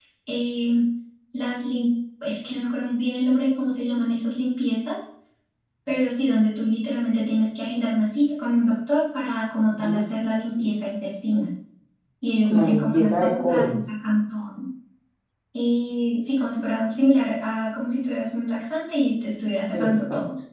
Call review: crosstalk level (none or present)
present